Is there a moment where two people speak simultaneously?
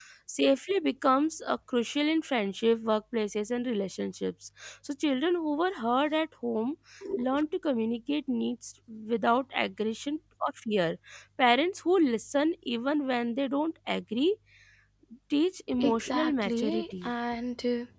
Yes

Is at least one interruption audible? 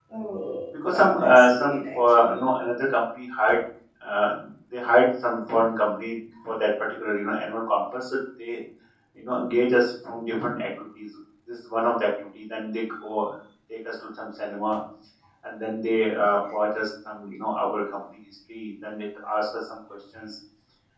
Yes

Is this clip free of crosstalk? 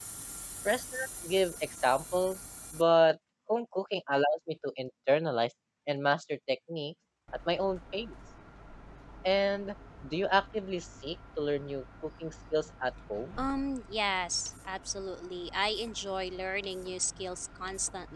Yes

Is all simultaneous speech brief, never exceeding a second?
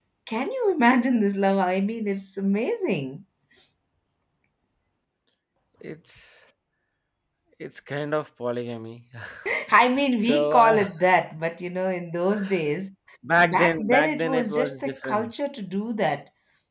No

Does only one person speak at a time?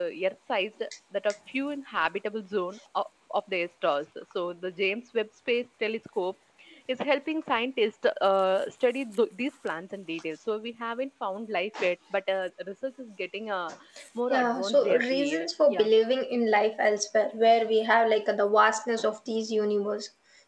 No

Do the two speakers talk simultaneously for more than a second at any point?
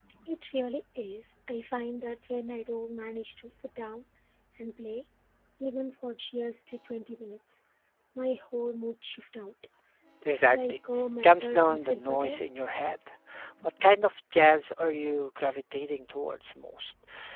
Yes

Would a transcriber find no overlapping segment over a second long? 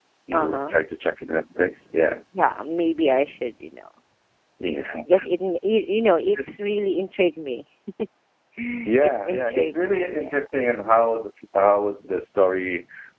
No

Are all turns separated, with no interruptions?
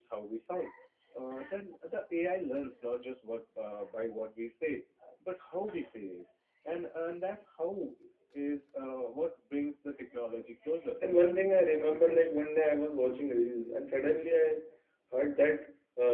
No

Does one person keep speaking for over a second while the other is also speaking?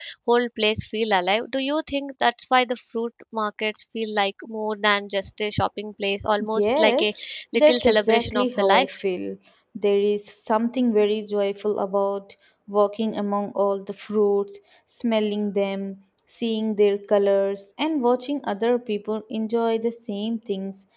Yes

